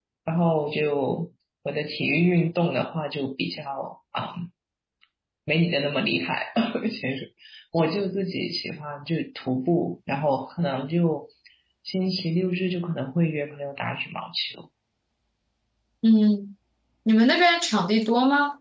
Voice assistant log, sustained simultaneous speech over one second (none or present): none